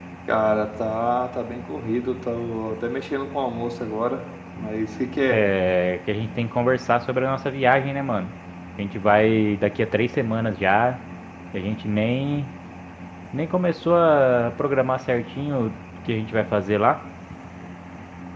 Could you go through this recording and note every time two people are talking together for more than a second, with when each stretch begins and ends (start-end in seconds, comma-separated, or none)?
none